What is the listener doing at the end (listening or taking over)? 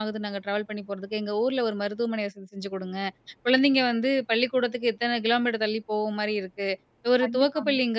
listening